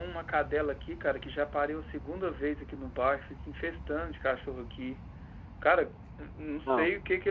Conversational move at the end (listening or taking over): listening